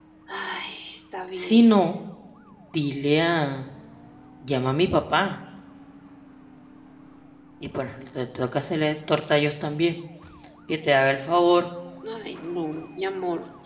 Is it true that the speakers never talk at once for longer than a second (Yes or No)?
Yes